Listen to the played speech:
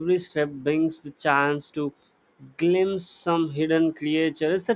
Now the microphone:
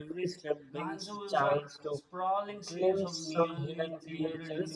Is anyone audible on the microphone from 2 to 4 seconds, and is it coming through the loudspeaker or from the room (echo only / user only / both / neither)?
both